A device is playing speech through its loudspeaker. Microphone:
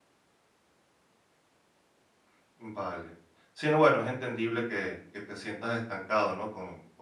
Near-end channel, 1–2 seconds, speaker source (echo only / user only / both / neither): neither